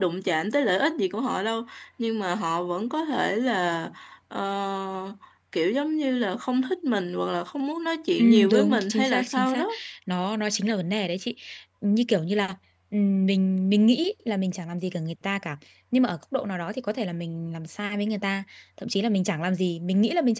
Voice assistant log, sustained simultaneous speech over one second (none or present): present